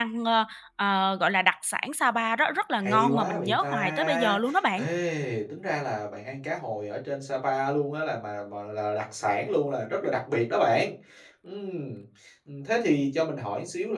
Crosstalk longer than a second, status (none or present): present